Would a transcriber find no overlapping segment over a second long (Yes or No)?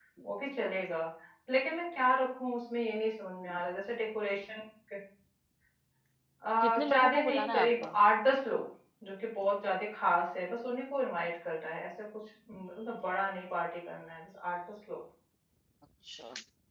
No